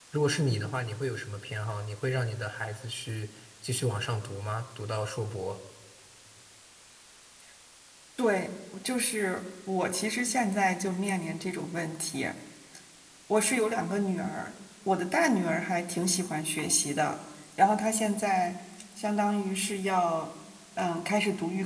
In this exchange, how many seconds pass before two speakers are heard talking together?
none

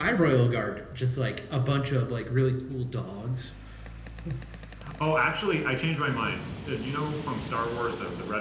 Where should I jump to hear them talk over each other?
none

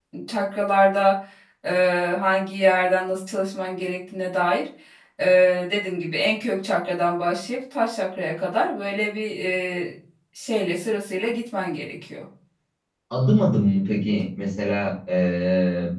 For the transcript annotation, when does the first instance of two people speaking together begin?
none

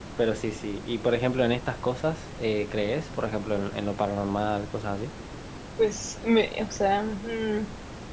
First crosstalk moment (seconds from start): none

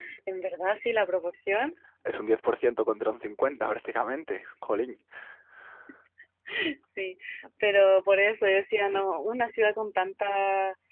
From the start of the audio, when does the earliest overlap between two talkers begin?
none

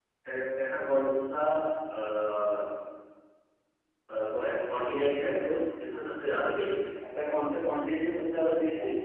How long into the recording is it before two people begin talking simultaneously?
none

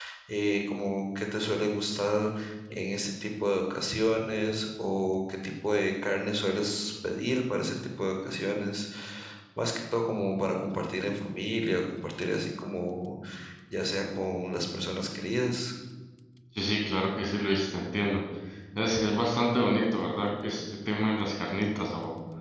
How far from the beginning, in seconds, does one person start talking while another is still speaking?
none

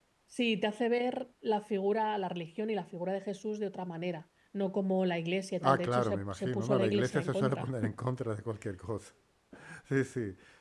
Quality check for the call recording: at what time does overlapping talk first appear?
6 s

